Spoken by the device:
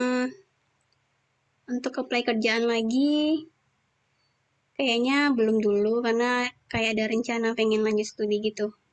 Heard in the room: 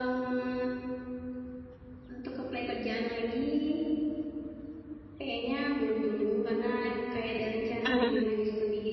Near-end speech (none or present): present